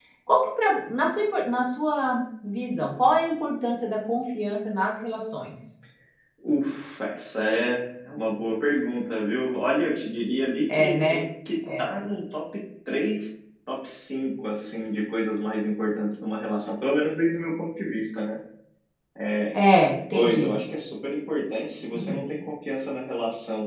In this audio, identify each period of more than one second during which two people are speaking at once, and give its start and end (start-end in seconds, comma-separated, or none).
none